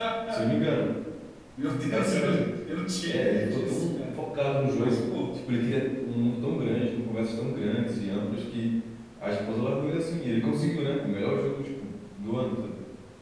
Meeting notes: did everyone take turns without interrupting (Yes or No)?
No